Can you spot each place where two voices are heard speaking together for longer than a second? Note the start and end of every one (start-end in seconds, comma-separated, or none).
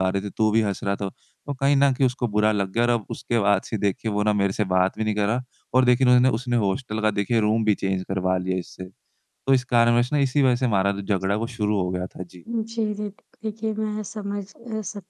none